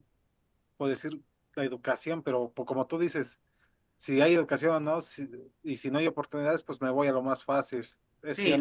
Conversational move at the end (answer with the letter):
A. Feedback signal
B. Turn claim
B